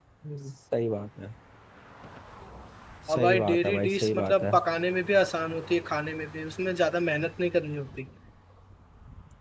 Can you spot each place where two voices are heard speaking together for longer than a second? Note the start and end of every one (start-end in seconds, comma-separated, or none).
3.1-4.4